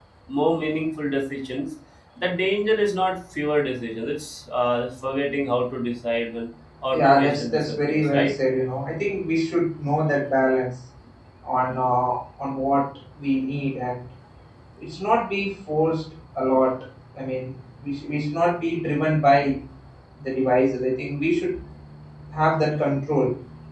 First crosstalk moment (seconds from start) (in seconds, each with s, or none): 6.9 s